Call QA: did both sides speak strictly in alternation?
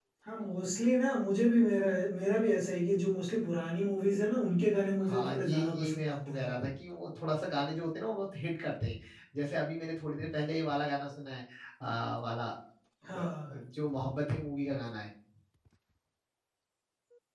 No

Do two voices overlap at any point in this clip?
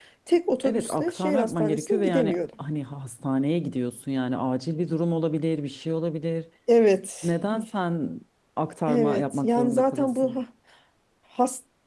Yes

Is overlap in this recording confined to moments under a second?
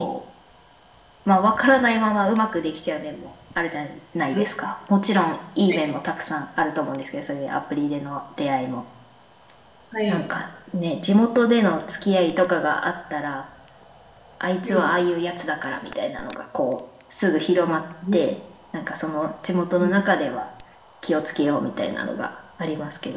Yes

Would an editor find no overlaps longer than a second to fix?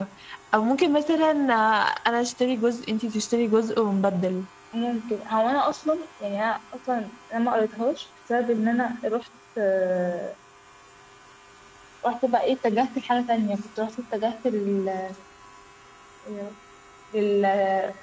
Yes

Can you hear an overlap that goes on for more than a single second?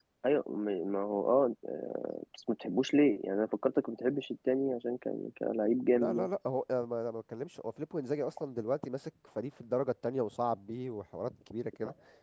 No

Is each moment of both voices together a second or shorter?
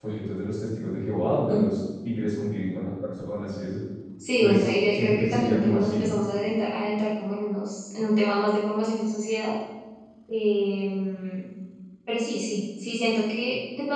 No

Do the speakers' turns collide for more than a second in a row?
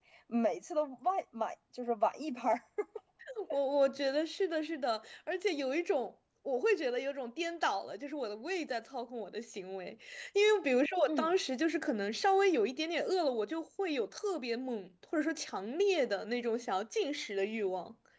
No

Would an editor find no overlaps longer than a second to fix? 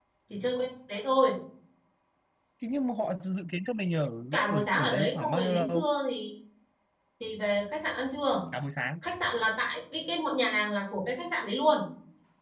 No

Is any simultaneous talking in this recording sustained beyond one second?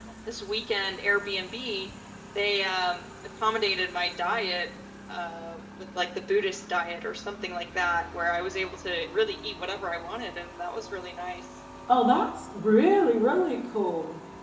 No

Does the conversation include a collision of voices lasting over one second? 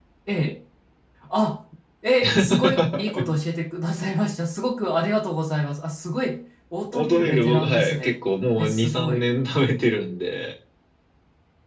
Yes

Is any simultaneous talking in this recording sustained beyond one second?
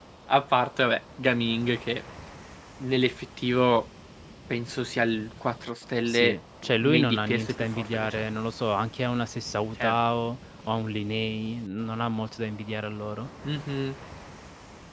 Yes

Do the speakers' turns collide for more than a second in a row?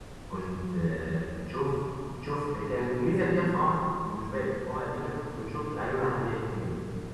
No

